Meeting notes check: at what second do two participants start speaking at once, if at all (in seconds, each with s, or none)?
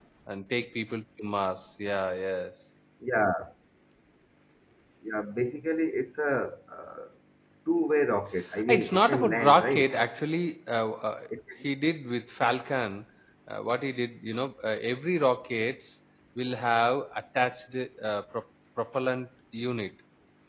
8.7 s